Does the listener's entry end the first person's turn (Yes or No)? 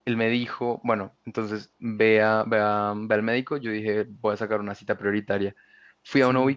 No